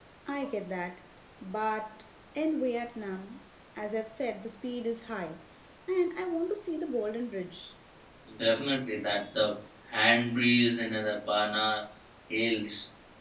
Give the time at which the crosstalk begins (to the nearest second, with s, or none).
none